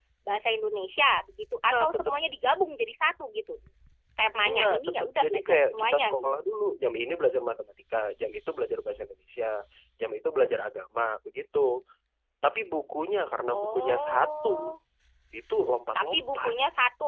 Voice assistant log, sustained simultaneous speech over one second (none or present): present